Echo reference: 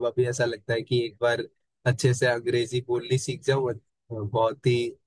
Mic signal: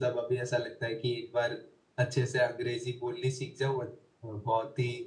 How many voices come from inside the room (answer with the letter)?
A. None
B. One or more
A